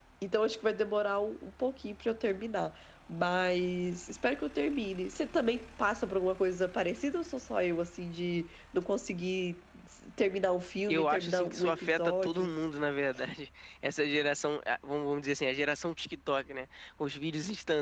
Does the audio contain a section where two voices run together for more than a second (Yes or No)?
Yes